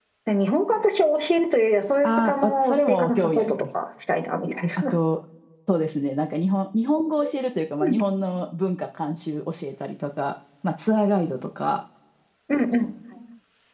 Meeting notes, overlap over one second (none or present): present